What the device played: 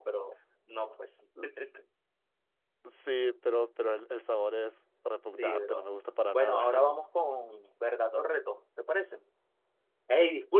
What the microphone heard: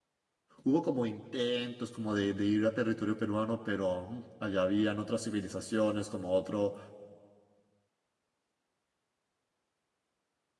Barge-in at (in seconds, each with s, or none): 0.6 s